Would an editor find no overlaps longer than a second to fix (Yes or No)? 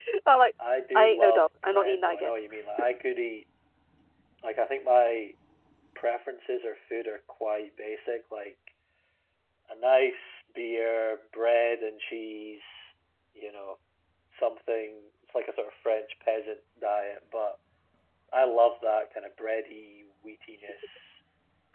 No